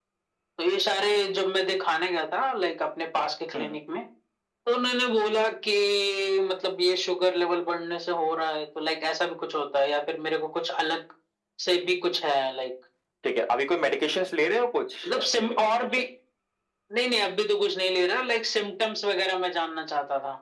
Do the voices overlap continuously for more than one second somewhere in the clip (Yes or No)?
No